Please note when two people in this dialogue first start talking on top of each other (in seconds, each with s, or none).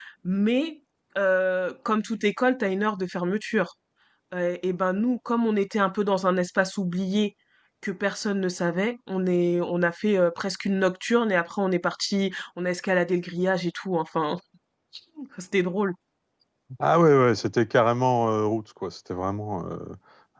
none